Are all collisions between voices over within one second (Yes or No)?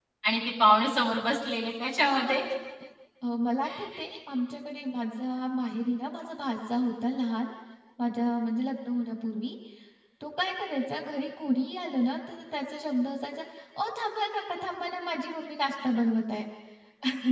Yes